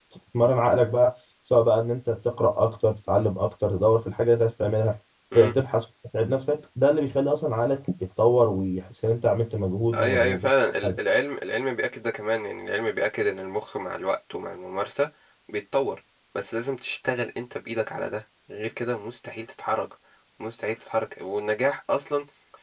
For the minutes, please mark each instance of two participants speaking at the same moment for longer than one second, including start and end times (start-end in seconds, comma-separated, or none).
none